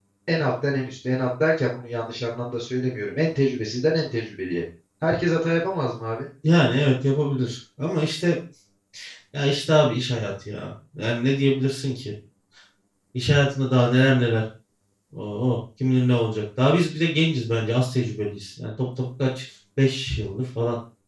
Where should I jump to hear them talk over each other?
none

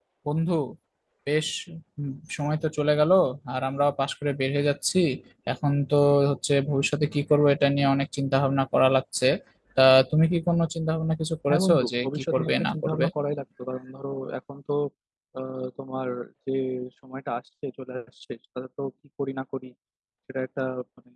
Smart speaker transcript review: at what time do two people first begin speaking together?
11 s

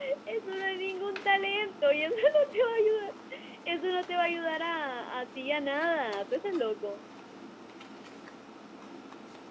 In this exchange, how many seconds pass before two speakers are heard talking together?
none

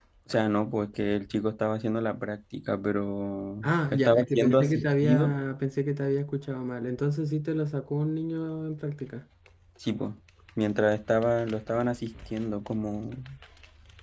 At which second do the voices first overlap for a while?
4 s

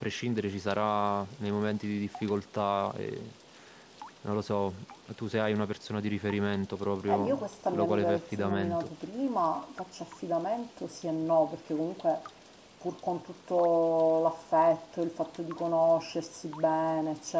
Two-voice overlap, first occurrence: 7 s

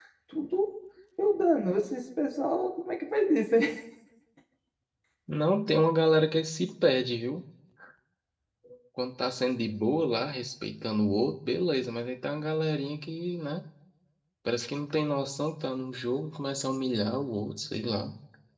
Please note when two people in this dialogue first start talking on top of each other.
none

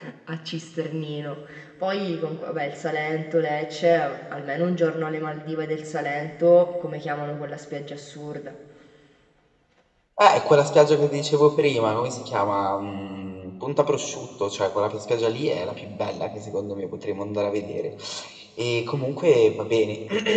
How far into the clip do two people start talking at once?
none

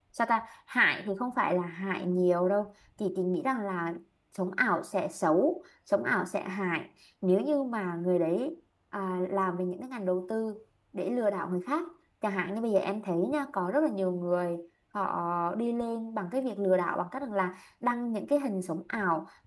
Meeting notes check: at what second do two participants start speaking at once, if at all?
none

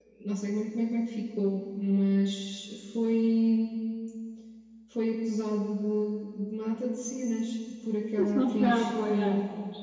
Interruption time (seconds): 8 s

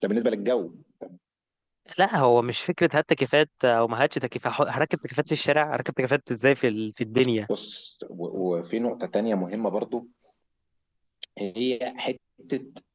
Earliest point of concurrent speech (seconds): none

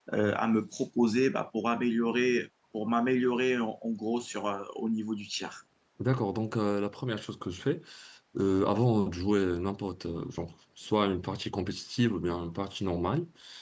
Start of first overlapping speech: none

